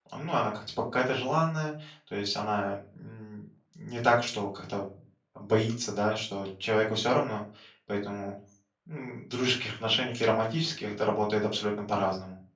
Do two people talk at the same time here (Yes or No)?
No